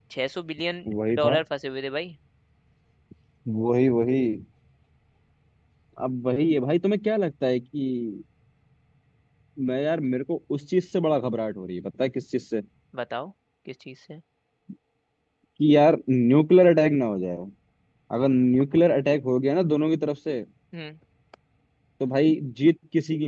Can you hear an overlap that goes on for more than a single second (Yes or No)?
No